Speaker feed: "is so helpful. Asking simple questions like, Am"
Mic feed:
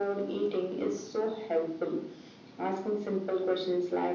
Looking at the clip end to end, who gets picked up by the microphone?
echo only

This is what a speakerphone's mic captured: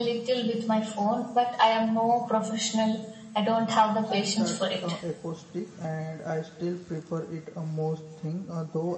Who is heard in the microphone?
both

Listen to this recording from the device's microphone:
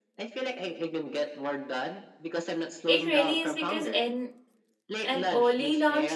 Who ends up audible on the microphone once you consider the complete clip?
both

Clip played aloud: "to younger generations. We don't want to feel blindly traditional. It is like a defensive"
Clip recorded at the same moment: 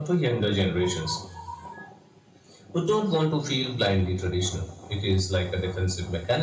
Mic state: echo only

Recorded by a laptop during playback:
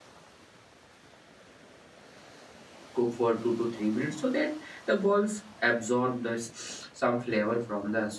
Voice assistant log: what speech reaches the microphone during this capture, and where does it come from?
user only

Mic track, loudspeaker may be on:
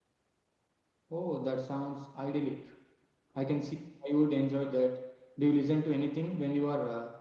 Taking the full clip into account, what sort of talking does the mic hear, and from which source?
user only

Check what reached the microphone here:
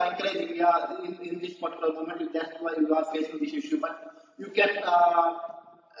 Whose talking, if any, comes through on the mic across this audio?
echo only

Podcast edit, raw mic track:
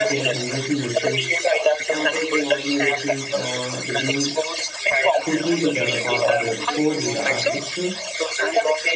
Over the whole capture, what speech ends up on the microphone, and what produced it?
both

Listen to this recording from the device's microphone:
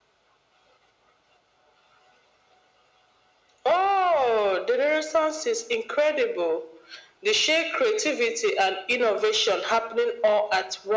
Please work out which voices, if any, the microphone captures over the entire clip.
echo only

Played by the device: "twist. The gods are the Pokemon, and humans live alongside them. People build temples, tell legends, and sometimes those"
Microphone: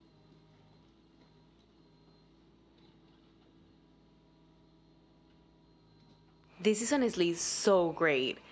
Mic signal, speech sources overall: user only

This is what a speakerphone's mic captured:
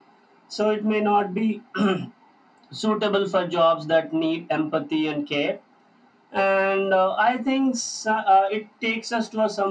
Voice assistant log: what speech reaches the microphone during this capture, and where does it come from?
echo only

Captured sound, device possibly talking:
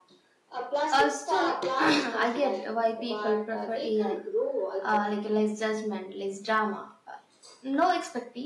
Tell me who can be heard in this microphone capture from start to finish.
both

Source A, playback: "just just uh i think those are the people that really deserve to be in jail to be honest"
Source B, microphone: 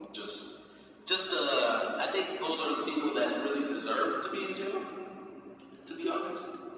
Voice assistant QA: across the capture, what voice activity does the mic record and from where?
echo only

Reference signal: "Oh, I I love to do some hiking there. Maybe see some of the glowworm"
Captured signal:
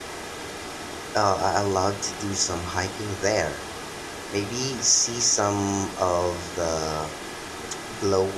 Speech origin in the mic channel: echo only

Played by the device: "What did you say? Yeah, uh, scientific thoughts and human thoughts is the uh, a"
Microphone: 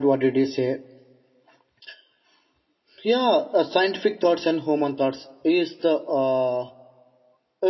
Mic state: echo only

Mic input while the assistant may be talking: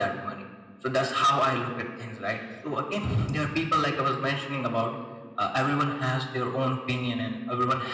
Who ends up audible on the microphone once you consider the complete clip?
echo only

